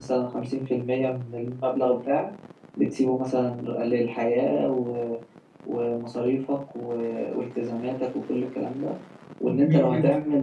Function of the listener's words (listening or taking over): listening